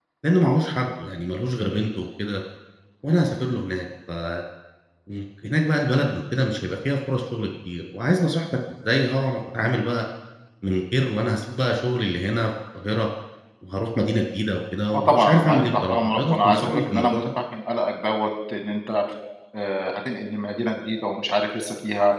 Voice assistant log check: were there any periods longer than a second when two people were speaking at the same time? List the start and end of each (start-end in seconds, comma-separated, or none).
14.9-17.3